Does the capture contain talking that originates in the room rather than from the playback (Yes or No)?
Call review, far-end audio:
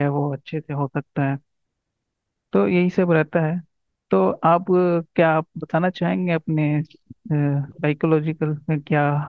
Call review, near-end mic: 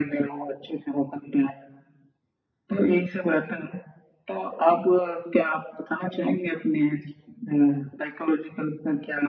No